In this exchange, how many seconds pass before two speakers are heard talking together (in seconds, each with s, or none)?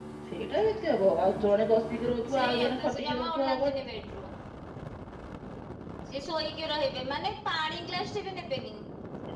2.2 s